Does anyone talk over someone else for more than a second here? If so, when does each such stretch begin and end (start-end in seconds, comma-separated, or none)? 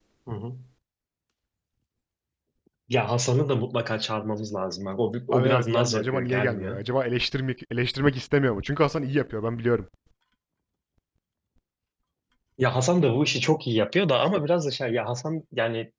5.3-6.8